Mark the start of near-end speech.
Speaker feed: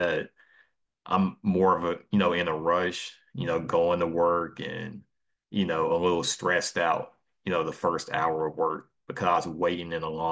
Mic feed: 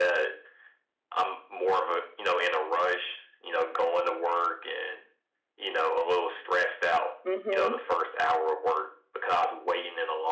7 s

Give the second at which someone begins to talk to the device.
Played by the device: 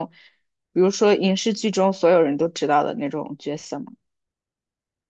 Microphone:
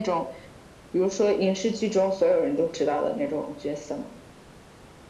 none

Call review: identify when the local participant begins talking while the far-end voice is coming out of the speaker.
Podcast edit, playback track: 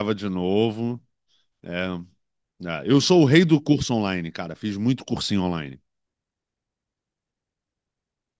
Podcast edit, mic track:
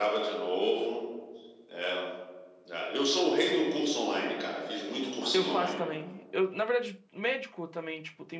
5 s

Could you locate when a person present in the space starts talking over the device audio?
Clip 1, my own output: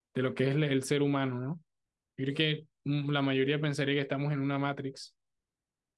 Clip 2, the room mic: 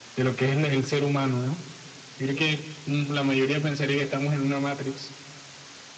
none

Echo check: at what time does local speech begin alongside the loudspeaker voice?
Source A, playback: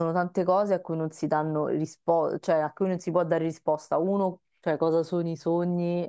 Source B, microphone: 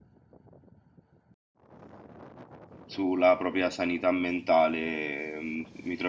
3 s

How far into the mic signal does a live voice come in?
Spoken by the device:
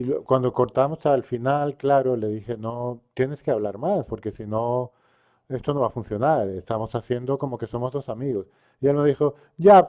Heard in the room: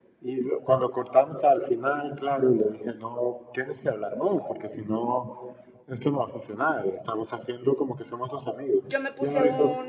9 s

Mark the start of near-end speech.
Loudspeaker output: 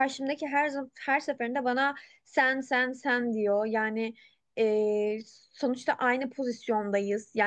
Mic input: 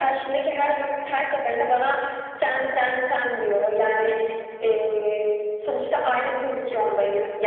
none

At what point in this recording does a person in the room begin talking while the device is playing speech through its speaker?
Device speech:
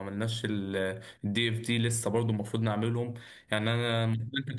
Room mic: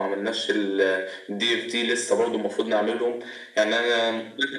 none

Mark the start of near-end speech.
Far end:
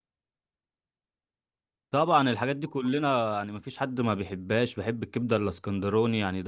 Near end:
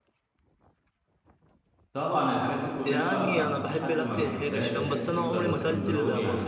3 s

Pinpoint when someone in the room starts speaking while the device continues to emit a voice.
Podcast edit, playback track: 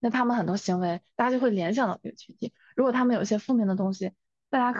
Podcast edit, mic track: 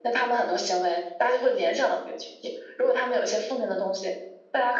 none

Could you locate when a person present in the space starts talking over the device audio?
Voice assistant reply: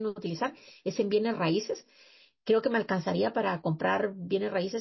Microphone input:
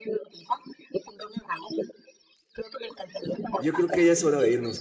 4 s

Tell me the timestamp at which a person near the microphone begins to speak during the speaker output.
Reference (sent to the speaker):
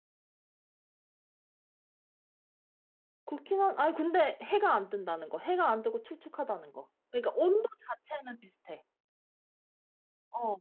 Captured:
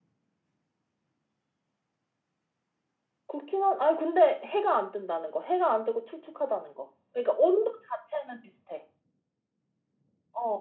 none

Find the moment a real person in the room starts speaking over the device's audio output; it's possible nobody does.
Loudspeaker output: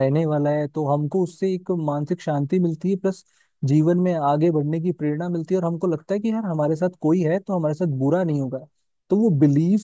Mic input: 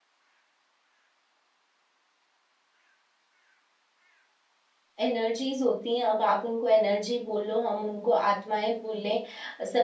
5 s

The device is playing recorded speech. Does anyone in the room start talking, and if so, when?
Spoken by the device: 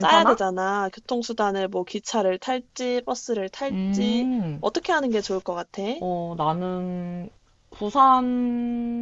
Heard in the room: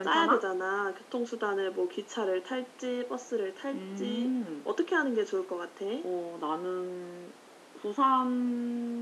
none

